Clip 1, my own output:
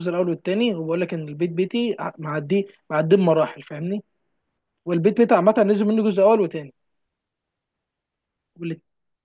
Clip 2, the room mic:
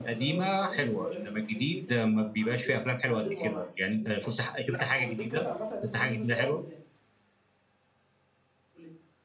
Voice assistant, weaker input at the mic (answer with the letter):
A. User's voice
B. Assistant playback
B